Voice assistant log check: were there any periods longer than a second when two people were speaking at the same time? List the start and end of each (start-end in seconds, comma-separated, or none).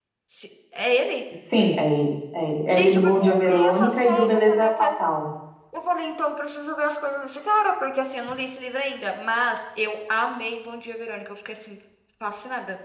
2.7-5.0